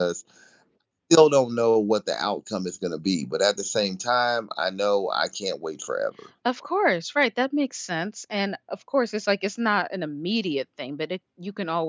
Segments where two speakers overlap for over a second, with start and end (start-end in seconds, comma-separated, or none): none